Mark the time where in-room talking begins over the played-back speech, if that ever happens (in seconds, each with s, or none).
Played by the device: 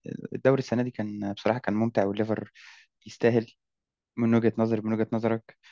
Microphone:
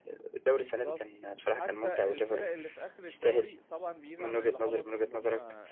0.5 s